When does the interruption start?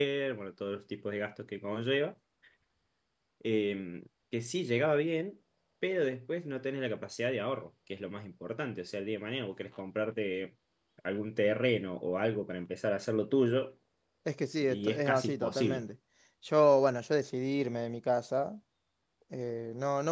14.6 s

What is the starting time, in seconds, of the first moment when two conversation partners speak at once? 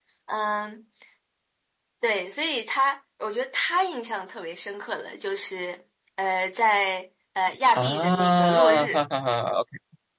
7.7 s

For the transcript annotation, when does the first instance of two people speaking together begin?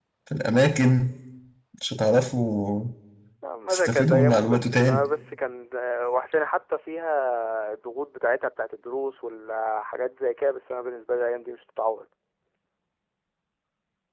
3.7 s

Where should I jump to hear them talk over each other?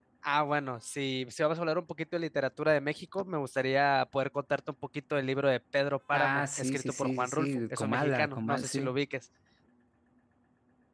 6.1 s

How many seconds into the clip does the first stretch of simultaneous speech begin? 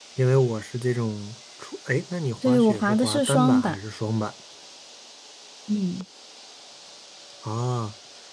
2.4 s

